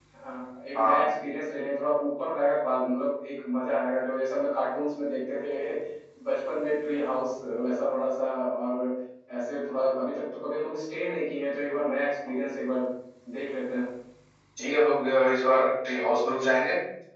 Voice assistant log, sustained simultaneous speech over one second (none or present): none